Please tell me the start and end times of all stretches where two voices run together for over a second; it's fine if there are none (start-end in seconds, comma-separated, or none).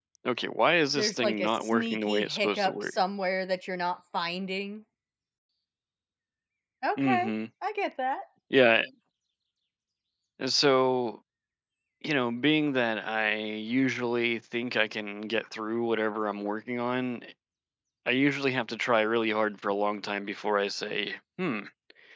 1.0-2.9